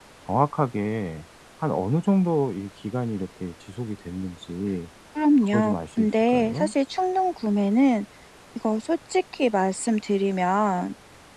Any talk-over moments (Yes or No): Yes